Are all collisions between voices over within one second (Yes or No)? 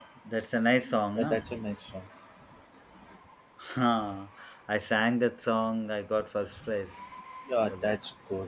Yes